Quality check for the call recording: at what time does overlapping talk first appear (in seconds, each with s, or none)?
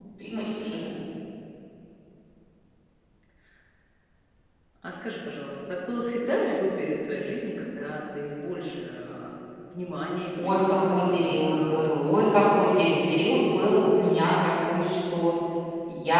10.4 s